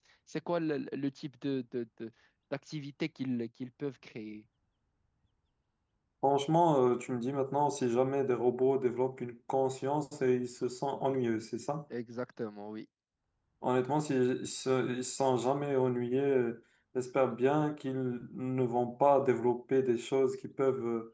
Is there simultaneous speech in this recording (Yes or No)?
No